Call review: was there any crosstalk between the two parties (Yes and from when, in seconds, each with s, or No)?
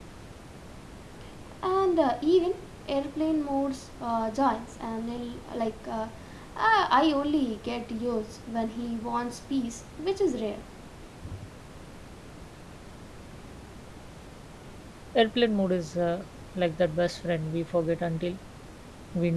No